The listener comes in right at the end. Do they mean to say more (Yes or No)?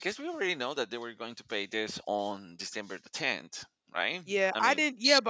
Yes